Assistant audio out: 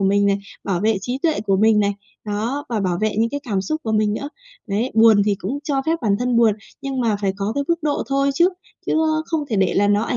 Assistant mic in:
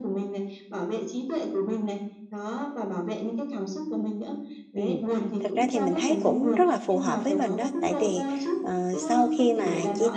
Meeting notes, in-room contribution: present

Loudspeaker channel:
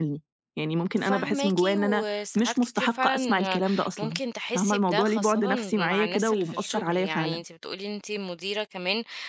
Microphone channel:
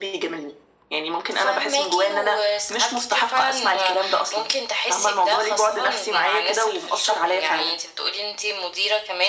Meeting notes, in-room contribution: none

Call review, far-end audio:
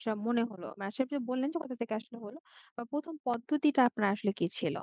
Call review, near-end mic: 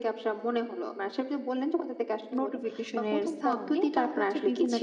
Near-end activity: present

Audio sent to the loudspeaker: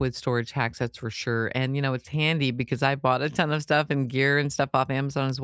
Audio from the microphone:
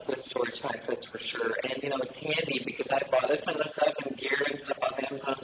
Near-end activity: none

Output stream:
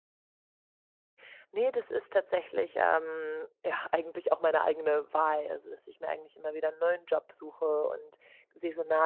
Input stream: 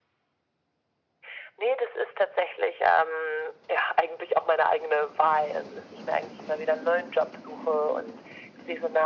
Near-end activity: none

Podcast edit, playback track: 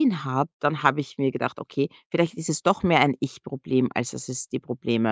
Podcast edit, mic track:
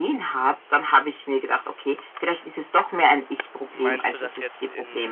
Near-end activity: present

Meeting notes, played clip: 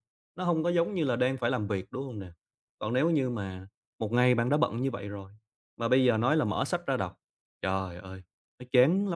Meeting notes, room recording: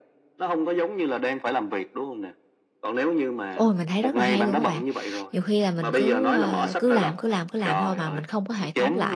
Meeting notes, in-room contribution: present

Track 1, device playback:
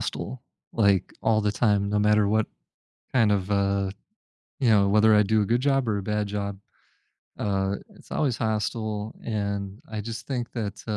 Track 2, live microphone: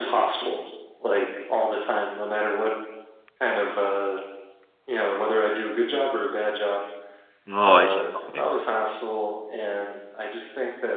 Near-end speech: present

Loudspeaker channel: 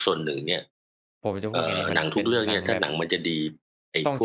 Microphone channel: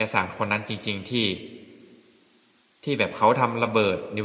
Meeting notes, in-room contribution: present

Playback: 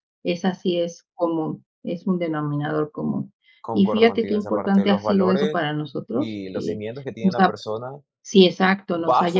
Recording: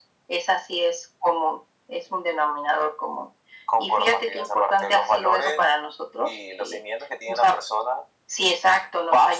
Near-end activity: none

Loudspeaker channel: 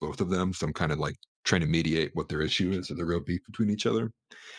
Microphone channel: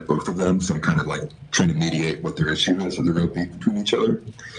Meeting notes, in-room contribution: none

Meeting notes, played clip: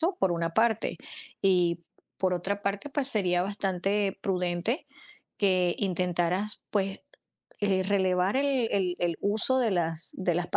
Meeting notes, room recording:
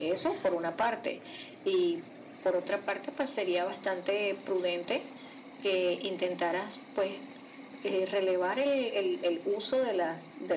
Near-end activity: none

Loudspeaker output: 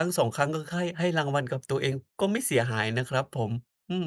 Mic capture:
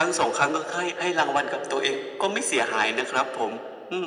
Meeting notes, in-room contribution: none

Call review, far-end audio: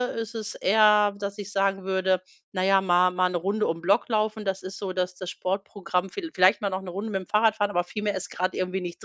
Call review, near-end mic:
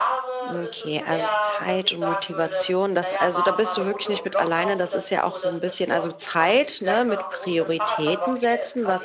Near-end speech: present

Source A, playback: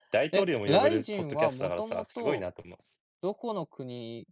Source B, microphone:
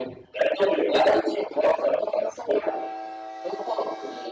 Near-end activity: none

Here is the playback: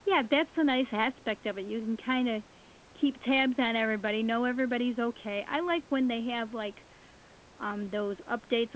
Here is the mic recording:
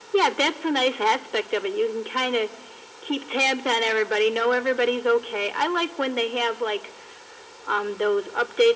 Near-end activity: none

